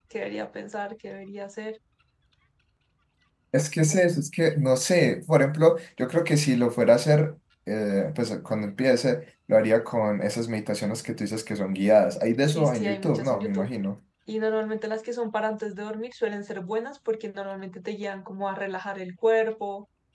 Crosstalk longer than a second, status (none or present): present